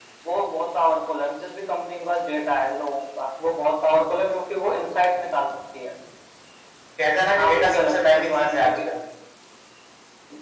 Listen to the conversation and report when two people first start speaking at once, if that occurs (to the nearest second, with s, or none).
7 s